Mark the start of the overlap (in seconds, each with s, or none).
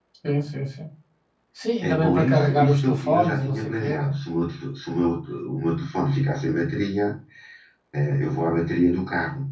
1.8 s